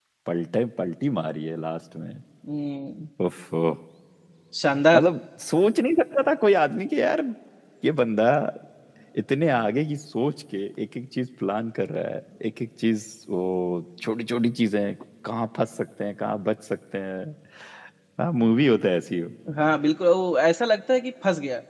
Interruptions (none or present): none